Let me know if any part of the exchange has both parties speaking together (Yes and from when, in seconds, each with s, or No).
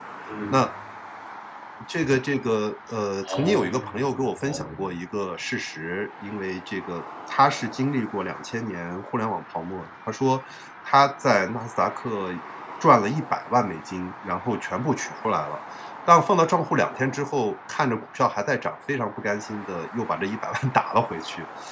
Yes, from 3.2 s